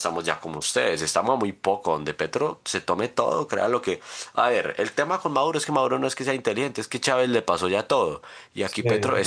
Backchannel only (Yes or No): Yes